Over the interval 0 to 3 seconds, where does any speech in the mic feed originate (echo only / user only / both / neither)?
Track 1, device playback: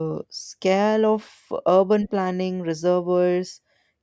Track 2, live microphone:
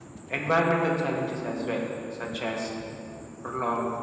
user only